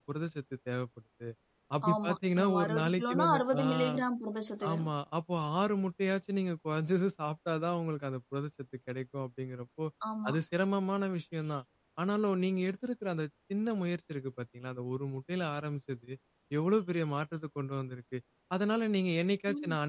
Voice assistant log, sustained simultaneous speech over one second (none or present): present